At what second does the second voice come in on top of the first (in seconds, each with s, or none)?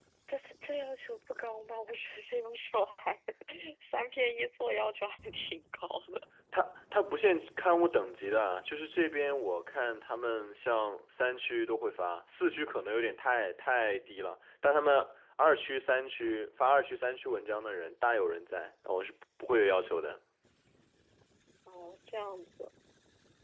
none